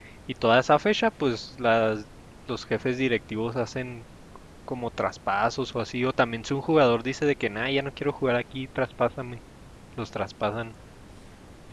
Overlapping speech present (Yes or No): No